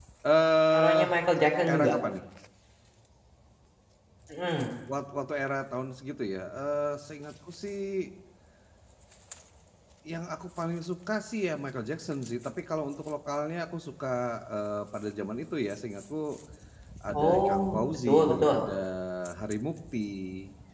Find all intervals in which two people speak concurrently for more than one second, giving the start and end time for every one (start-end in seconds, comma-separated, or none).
17.1-18.6